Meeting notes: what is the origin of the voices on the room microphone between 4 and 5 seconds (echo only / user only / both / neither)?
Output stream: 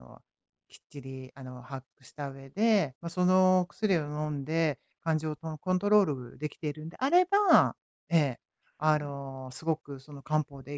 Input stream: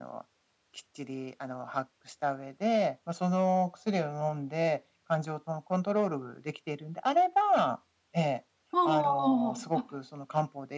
echo only